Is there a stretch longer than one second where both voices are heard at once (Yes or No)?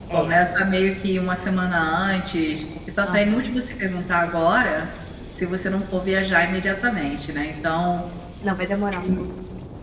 No